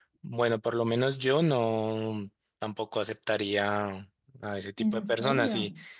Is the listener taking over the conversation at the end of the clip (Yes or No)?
No